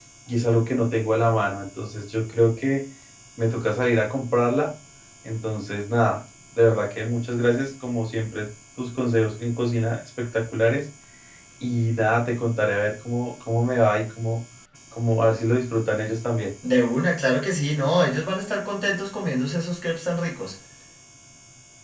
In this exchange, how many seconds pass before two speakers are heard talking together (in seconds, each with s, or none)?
none